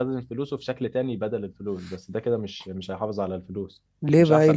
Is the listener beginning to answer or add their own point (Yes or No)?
Yes